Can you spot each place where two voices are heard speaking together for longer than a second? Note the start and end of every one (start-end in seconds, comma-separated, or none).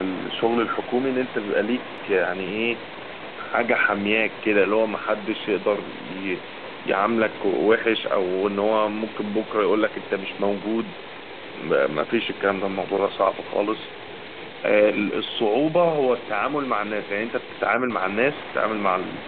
none